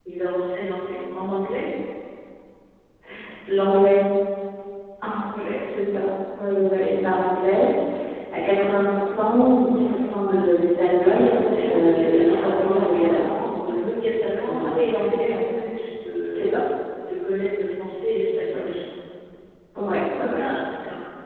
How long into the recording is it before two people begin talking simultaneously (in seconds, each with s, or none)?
11.0 s